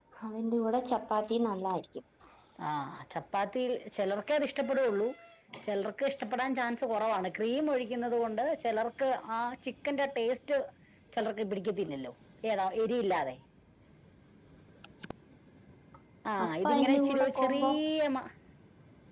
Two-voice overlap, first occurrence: 16 s

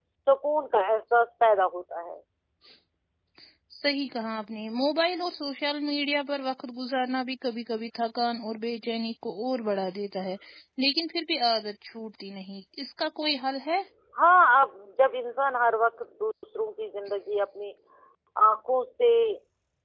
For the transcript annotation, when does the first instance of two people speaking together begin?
none

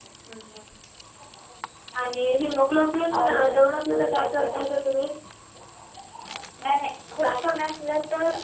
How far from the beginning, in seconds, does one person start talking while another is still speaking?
3 s

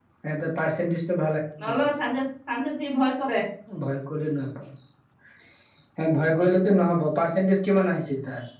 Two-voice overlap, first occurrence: none

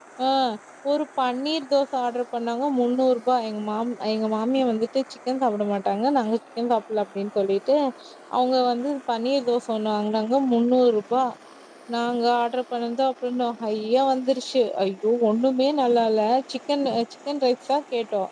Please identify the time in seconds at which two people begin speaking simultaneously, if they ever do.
none

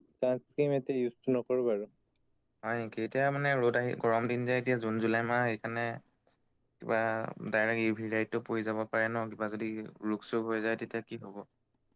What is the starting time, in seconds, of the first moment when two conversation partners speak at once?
none

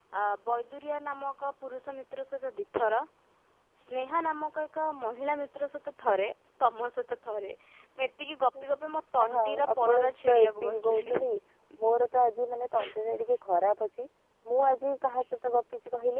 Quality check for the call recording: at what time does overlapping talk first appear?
9 s

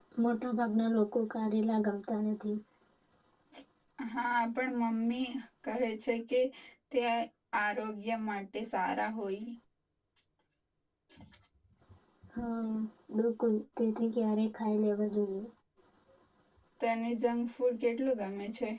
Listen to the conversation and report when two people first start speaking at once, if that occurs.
none

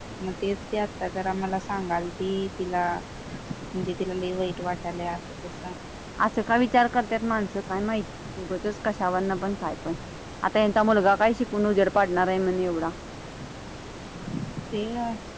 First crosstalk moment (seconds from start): none

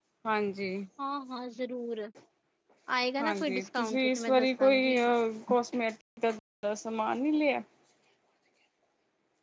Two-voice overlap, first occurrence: 3 s

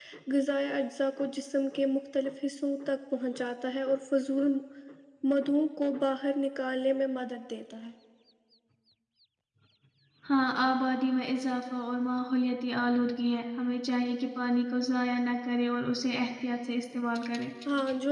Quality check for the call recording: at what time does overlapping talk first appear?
none

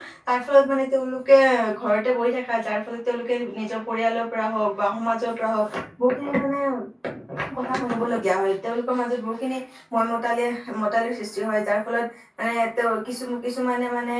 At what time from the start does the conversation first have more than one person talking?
none

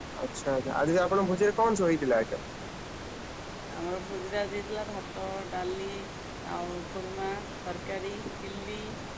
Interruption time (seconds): none

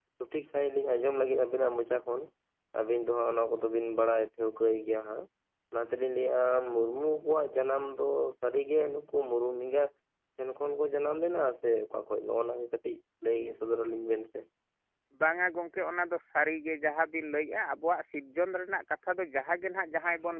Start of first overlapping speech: none

